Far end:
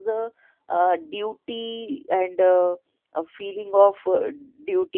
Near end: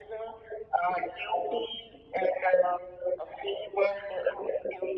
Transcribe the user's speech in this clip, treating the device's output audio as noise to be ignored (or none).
none